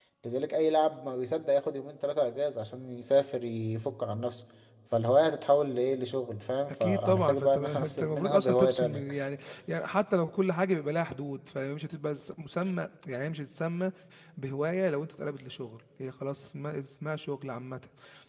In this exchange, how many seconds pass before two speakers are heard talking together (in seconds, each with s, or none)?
6.8 s